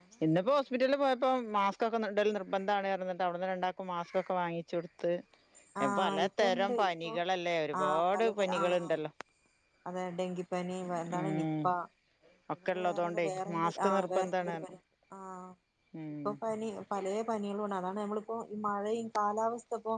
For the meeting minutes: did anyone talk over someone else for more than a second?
Yes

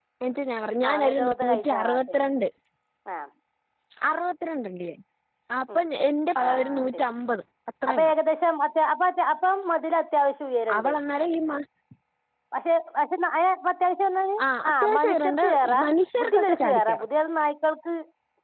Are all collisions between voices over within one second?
No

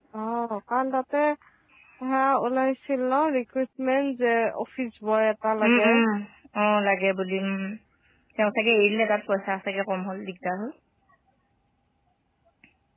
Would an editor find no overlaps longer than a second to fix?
Yes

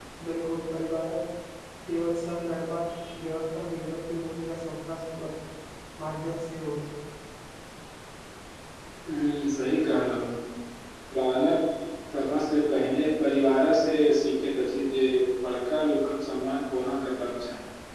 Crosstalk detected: No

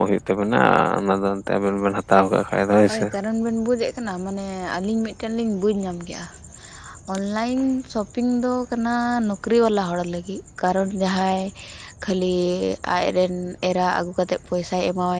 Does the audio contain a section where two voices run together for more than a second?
No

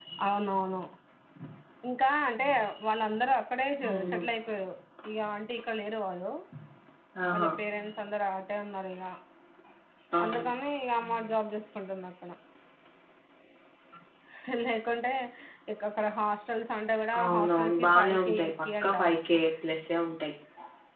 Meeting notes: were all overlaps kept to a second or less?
No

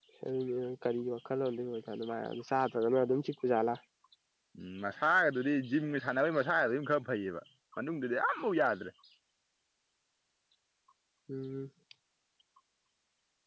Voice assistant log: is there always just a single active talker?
Yes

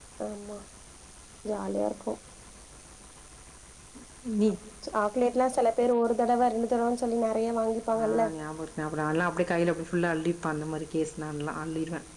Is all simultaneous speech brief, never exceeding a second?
Yes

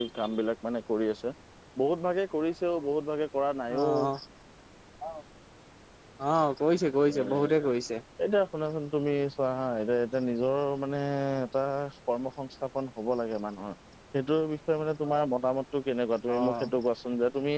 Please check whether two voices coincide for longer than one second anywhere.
No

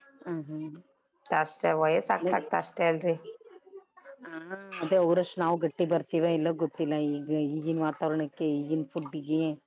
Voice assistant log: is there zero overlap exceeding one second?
Yes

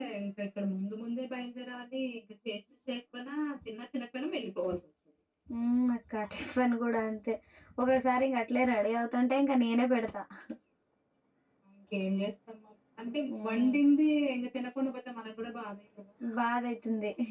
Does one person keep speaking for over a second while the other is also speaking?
No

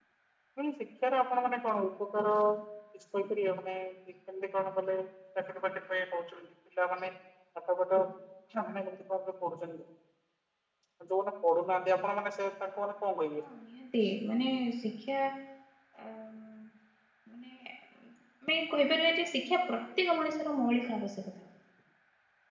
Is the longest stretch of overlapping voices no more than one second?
Yes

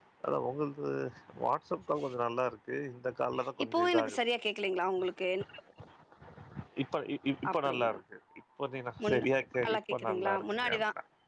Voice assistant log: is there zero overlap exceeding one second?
No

